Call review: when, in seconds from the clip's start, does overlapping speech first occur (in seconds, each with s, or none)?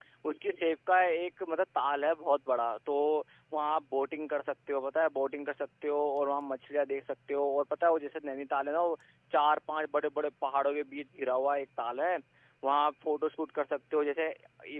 none